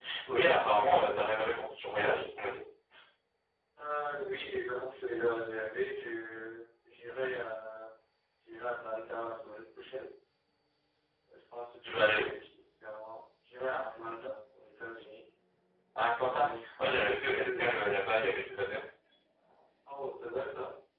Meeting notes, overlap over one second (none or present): present